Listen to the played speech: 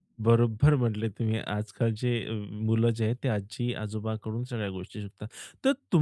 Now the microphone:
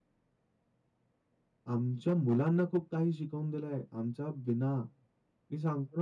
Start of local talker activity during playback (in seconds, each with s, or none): 1.7 s